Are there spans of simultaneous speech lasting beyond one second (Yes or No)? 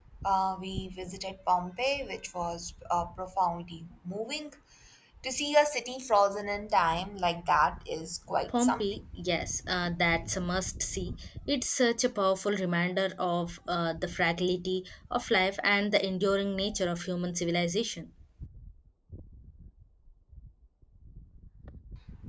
No